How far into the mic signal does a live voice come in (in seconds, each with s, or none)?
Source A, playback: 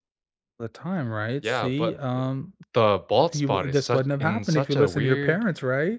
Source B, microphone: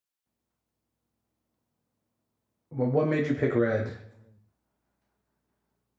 2.7 s